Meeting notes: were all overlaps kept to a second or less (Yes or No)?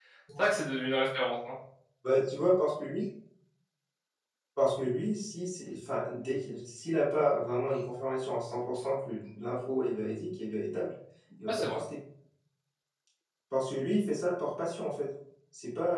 Yes